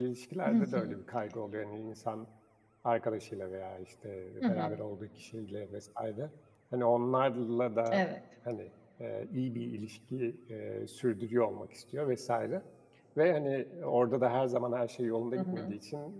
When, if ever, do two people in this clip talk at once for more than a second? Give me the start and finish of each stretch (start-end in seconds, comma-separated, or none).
none